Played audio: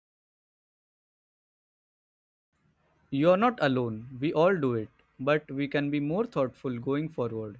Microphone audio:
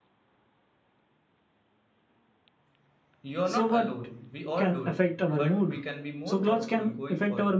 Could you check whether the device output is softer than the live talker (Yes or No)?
Yes